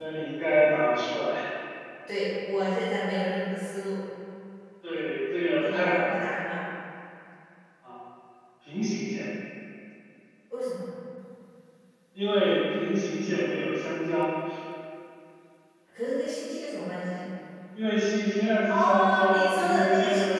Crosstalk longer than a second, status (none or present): present